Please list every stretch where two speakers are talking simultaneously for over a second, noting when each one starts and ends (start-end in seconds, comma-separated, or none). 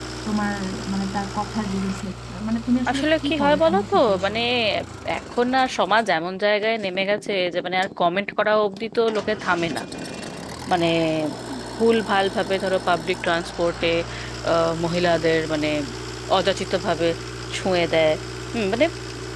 2.9-4.4